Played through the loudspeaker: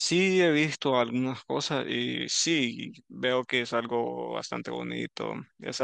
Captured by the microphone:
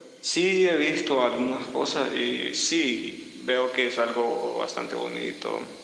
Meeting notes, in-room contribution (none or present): none